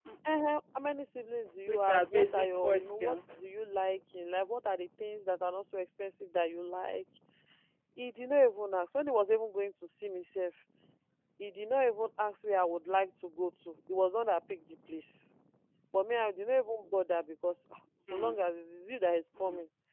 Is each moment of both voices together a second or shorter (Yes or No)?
No